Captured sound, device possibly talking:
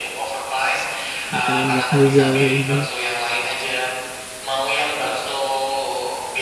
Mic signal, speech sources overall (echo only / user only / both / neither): both